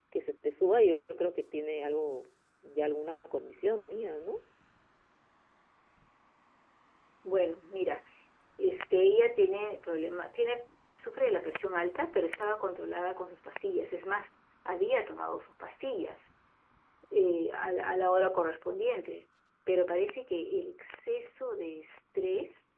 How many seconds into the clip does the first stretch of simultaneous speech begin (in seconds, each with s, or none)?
none